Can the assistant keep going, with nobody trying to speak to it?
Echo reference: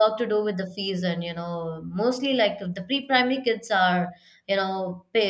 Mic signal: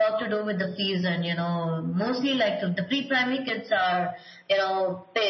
Yes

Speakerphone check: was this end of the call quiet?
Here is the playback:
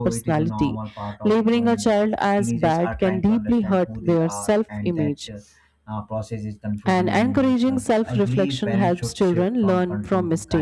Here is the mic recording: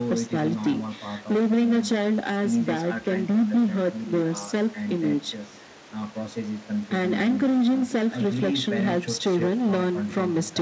Yes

